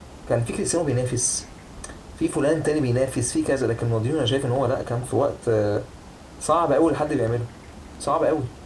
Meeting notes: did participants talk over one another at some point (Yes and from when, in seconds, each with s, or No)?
No